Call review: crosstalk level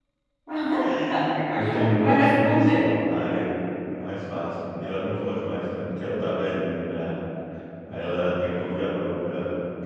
present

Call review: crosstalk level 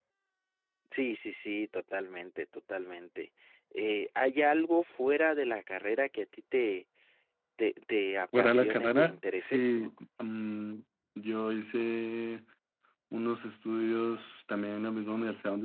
present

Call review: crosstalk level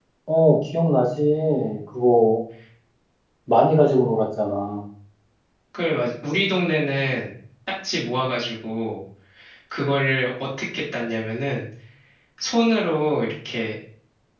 none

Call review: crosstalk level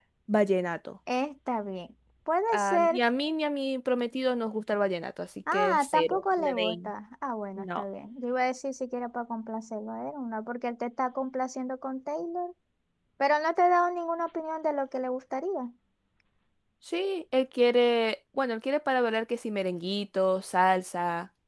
present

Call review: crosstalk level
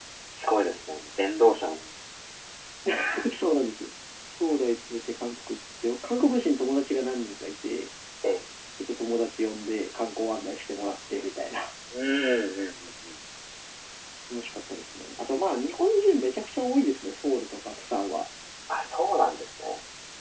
none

